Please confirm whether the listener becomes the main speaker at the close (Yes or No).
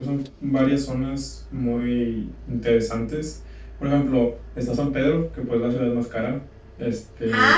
Yes